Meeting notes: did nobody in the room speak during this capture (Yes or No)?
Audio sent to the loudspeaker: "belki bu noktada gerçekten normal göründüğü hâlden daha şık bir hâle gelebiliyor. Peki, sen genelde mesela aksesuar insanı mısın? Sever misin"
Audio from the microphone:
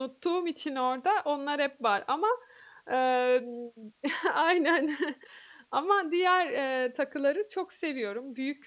No